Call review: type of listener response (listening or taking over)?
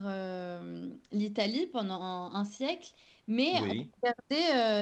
listening